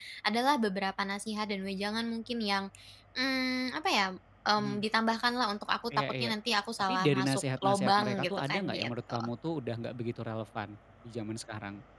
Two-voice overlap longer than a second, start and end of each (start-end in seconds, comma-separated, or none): 6.8-9.2